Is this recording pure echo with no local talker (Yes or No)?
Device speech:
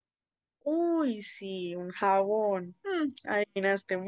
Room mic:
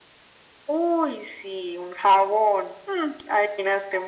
Yes